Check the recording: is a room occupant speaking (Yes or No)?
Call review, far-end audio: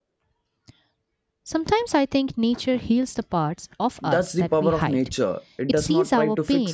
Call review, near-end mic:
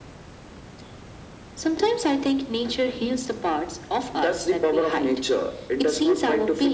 No